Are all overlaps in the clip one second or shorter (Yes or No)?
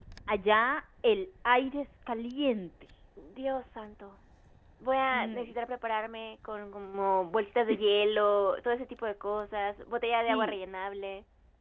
Yes